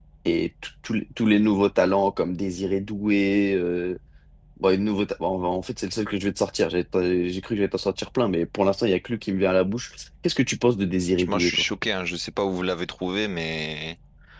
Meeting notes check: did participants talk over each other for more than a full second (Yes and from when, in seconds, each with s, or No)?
No